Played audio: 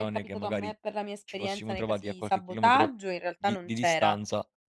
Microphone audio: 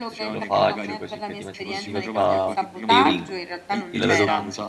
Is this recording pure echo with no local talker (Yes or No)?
No